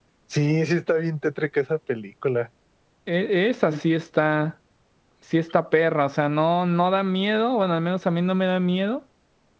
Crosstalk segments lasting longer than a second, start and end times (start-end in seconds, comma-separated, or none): none